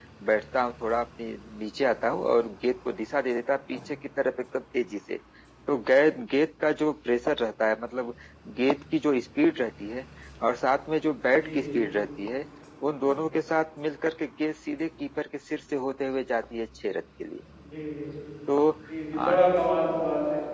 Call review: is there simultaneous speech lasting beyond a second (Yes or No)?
No